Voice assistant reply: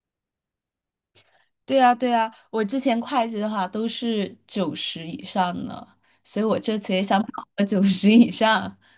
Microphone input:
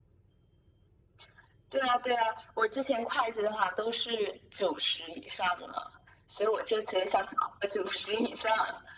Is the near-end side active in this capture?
No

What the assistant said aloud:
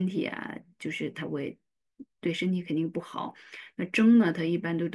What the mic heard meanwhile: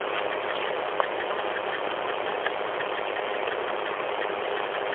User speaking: No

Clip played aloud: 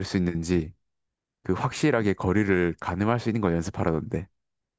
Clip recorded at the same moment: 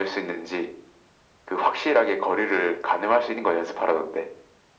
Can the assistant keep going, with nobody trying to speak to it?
Yes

